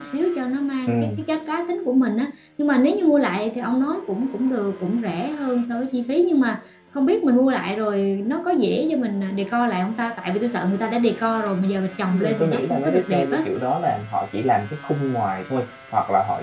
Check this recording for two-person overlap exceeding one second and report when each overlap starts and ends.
12.1-13.4

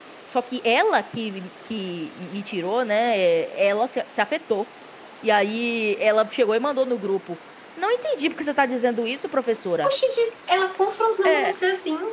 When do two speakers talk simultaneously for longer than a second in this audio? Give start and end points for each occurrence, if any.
none

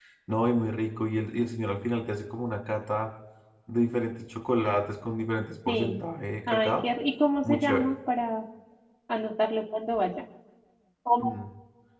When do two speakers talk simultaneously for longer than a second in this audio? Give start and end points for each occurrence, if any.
none

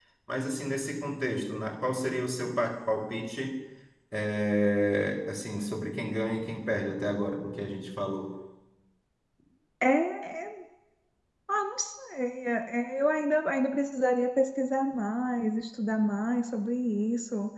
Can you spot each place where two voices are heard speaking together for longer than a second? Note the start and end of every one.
none

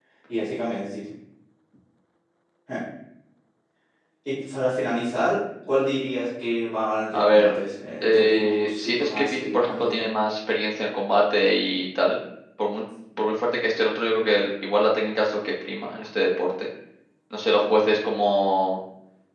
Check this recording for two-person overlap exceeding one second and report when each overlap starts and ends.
8.0-10.1

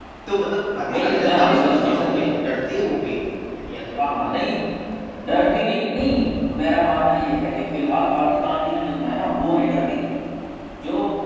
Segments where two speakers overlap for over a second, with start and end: 0.9-2.2

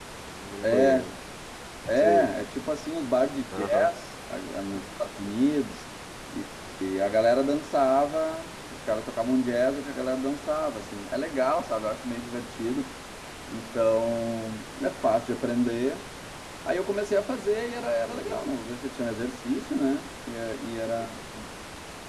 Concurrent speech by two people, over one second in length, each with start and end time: none

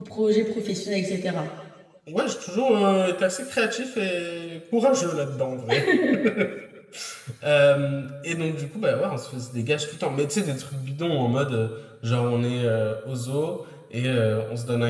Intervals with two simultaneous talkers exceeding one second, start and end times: none

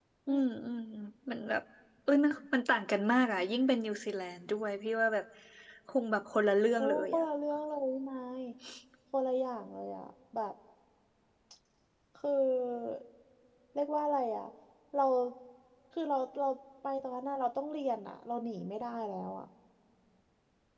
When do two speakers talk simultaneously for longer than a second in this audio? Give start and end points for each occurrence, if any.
none

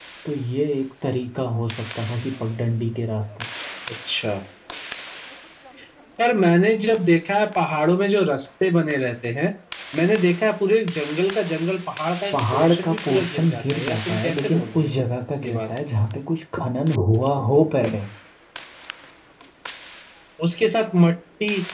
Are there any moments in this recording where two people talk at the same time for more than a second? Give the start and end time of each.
12.3-15.0

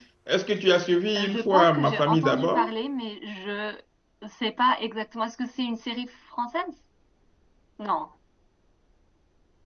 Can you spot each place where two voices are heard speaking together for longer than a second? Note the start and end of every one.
1.2-2.7

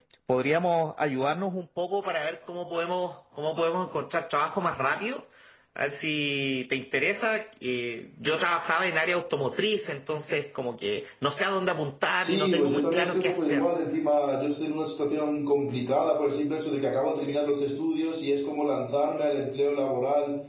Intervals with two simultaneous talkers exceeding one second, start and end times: 12.2-13.7

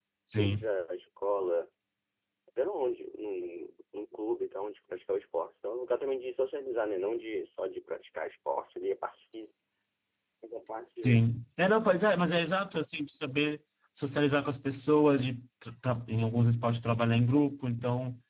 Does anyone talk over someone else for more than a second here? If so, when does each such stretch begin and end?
none

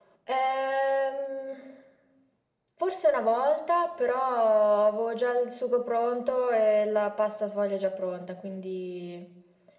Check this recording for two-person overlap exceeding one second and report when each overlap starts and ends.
none

